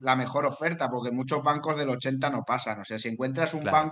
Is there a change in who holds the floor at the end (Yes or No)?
No